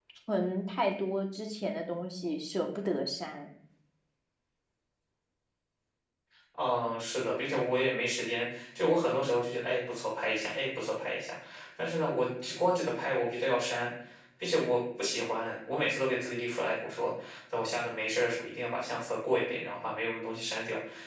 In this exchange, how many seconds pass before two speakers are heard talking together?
none

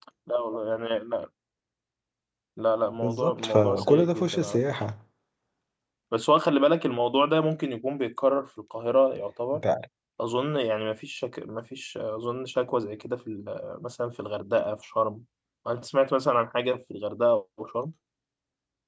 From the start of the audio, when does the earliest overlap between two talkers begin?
2.9 s

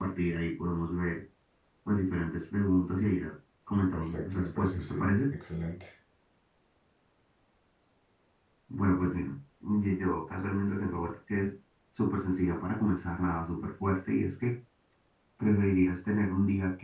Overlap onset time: 3.9 s

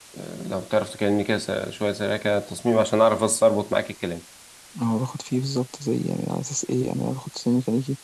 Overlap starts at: none

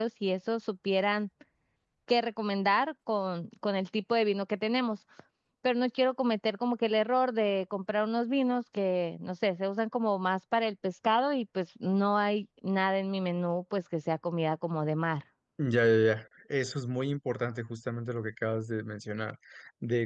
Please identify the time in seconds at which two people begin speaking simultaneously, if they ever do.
none

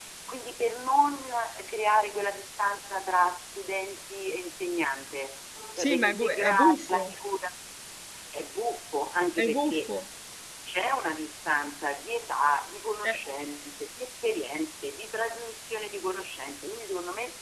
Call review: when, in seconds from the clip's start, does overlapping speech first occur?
5.8 s

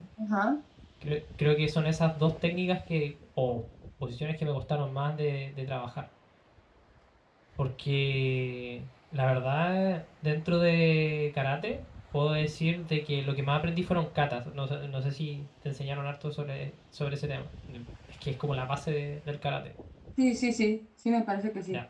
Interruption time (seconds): none

